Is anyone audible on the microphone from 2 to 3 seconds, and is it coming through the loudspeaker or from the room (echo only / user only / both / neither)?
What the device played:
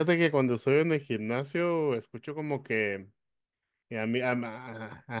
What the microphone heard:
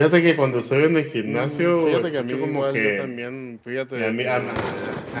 both